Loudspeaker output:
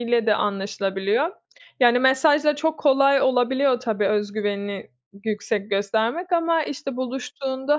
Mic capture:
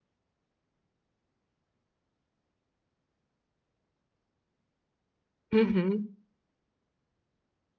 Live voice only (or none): Hı hı.